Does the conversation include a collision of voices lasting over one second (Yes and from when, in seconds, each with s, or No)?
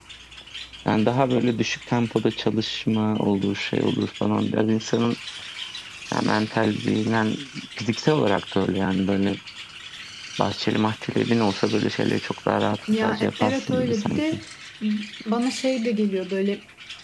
Yes, from 12.9 s